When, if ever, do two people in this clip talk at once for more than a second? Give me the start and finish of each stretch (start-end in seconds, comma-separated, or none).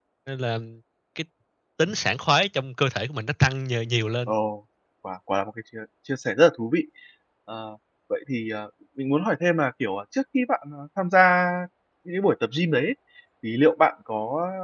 none